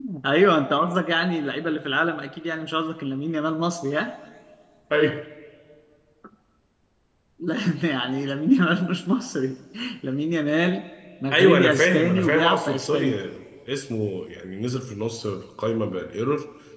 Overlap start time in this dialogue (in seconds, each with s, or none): 11.3 s